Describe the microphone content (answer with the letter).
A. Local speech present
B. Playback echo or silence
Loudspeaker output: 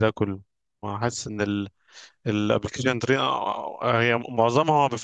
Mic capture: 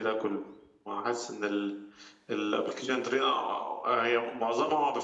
B